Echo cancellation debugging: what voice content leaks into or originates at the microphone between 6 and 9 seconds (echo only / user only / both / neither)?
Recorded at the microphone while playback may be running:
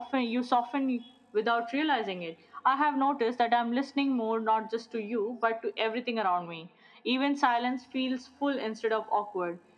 echo only